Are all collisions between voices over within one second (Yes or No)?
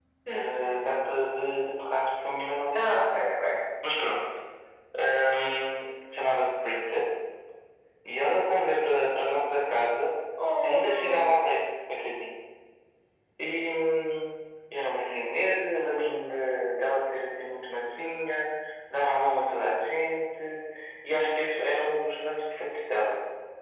Yes